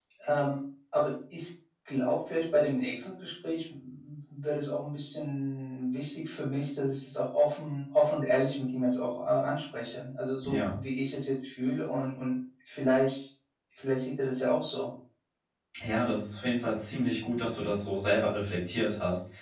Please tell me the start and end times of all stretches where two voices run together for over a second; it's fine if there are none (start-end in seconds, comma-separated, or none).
none